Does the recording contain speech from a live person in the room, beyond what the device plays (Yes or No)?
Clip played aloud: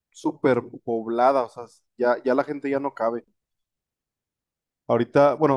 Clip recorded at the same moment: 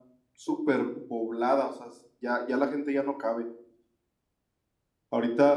No